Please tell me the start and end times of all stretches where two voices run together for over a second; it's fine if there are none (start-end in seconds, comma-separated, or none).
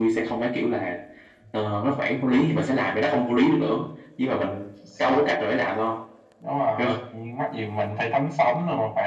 none